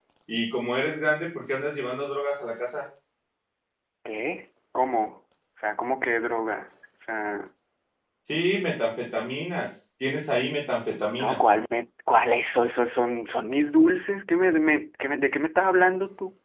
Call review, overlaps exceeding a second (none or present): none